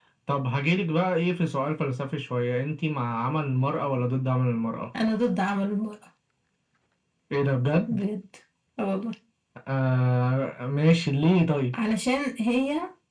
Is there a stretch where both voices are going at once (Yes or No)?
No